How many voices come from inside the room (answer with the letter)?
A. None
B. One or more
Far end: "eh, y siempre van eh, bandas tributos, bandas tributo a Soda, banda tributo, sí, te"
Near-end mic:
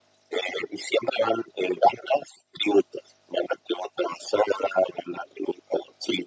A